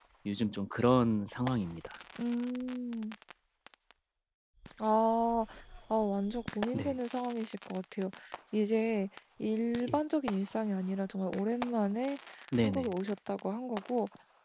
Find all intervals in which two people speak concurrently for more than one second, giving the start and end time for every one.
none

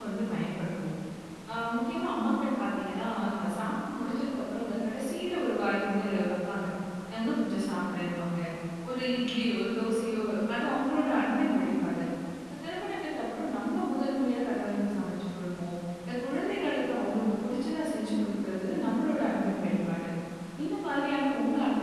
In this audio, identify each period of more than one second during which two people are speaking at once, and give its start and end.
none

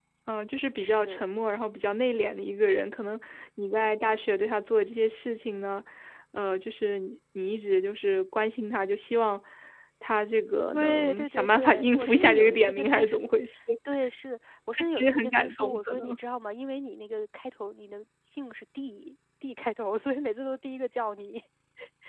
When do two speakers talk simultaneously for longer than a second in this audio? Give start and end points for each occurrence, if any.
10.7-13.2, 14.8-16.1

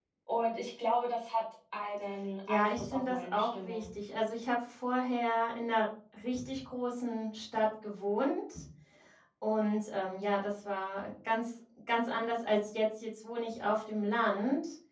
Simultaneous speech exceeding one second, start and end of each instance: 2.5-3.9

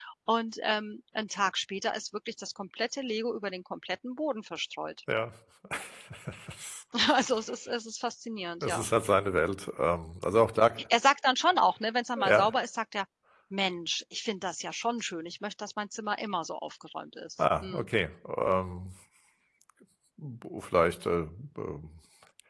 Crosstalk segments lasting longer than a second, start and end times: none

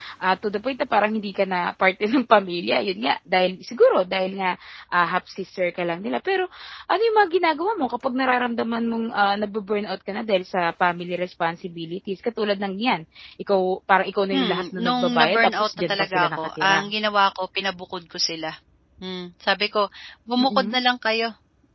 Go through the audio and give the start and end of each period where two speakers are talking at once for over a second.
14.3-16.9

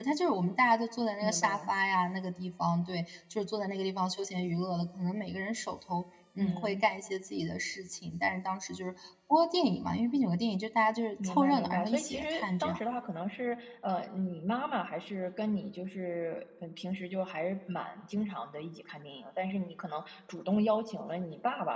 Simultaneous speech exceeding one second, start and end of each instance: 11.2-12.8

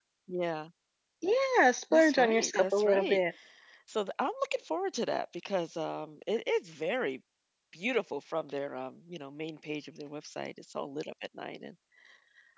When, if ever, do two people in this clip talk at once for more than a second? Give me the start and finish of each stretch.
1.9-3.2

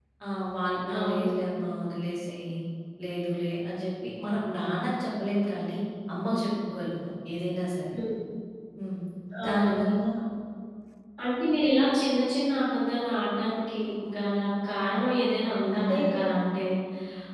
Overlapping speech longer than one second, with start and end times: none

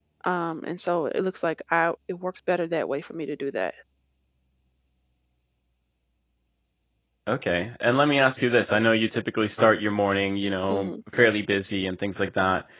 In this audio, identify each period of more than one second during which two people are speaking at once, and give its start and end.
none

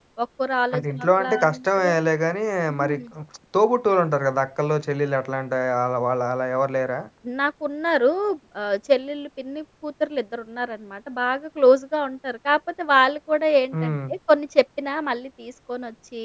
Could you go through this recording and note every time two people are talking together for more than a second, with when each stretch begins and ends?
0.7-1.9

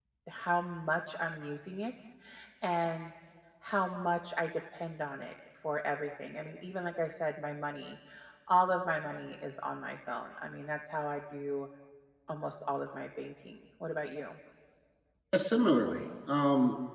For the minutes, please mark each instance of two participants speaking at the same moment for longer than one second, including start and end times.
none

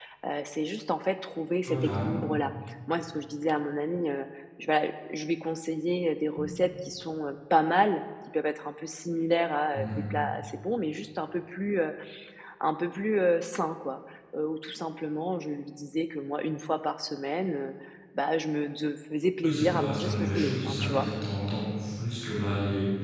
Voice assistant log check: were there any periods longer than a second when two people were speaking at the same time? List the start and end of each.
19.4-21.1

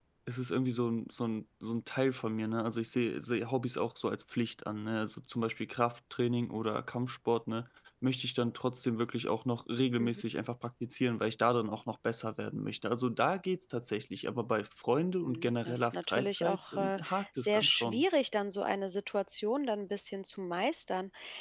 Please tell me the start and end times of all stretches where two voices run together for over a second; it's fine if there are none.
15.2-18.0

